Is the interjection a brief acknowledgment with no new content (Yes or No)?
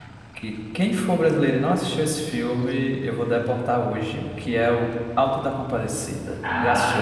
No